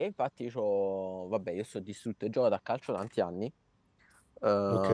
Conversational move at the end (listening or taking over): listening